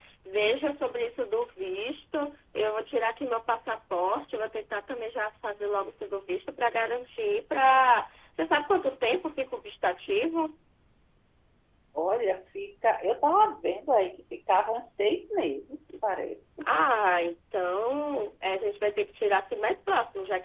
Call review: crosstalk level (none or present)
none